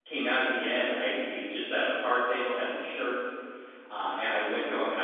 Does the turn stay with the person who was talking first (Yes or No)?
Yes